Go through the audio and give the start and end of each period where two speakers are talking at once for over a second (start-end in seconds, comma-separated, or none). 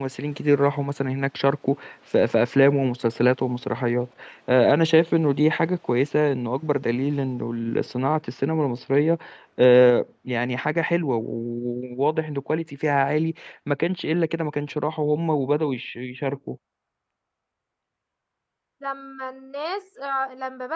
none